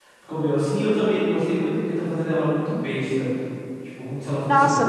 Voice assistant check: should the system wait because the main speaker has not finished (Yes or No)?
No